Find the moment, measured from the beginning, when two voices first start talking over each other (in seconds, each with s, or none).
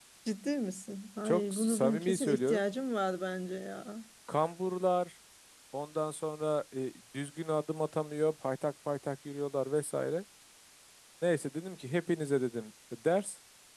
1.2 s